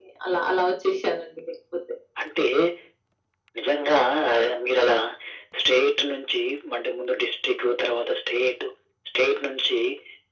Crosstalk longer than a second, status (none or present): none